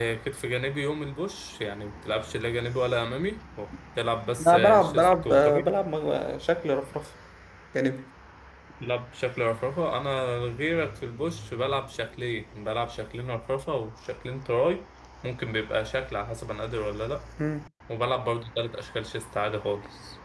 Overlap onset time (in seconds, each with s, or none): 4.5 s